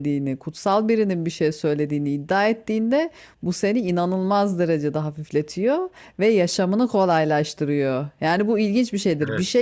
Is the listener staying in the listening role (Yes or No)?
Yes